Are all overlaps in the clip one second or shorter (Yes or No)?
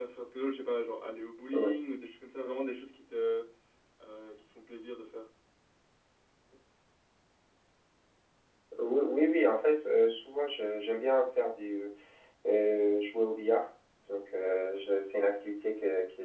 Yes